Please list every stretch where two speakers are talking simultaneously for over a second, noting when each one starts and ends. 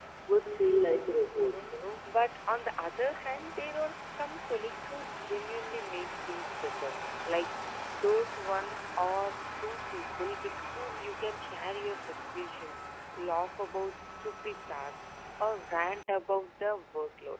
0.6-2.1

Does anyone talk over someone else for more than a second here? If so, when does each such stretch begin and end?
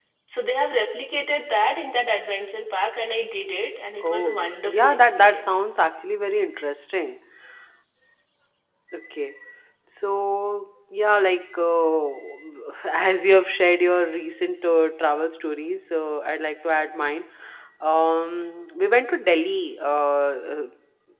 4.1-5.6

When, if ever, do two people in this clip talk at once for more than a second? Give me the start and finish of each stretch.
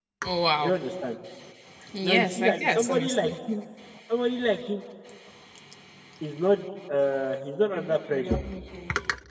2.0-3.3

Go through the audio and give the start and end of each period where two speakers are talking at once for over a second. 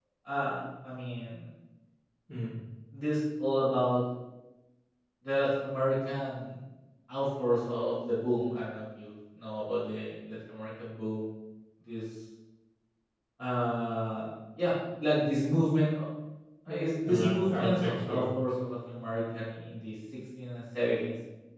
16.7-18.2

